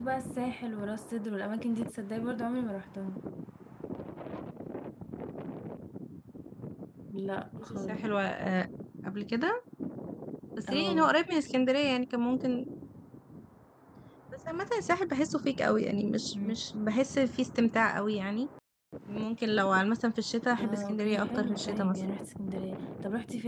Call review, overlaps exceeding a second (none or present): present